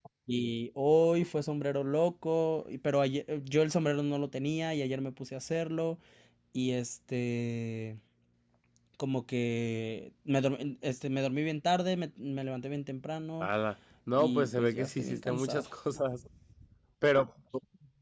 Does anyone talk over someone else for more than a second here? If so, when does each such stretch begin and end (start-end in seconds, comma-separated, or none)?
14.2-15.6